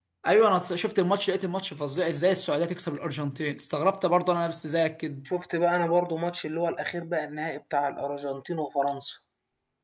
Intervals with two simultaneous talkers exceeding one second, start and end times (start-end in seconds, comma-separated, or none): none